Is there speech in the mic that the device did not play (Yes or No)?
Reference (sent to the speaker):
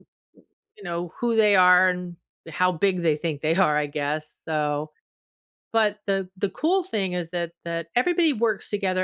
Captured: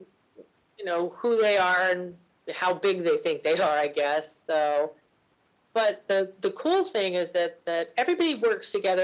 No